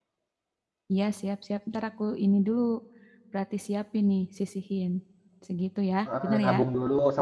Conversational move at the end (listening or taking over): taking over